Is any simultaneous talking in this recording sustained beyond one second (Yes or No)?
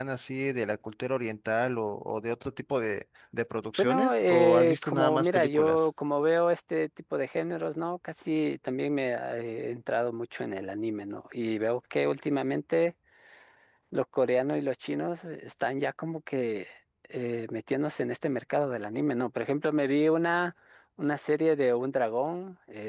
Yes